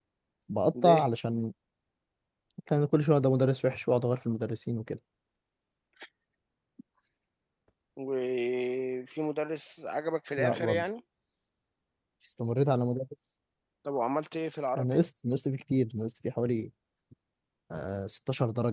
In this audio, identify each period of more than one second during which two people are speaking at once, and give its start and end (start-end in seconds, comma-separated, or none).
none